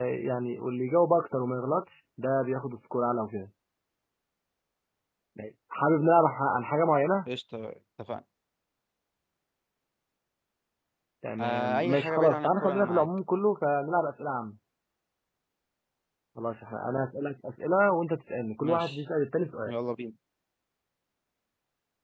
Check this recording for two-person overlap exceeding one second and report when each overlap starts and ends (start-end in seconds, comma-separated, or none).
11.4-13.1